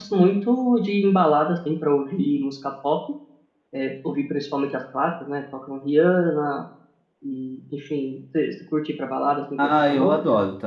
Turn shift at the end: Yes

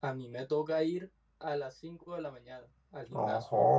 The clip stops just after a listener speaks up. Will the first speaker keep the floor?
No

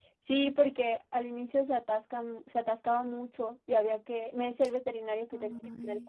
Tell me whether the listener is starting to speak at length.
No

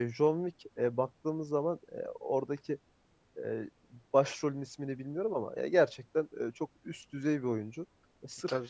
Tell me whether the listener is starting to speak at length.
No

